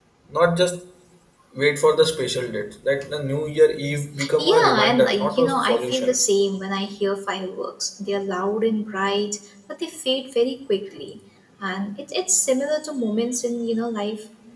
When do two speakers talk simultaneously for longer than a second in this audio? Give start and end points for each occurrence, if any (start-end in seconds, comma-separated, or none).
4.4-6.1